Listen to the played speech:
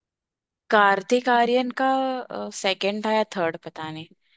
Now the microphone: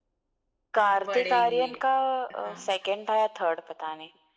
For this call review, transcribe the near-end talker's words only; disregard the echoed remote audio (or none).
बढ़ेगी हाँ